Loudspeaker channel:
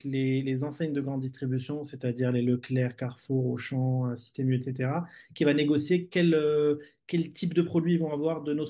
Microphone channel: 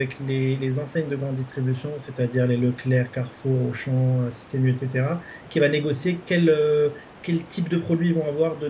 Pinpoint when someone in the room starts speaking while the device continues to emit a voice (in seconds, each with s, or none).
none